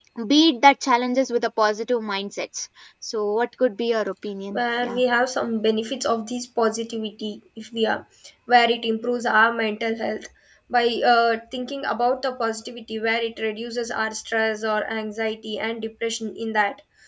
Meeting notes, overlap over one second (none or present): none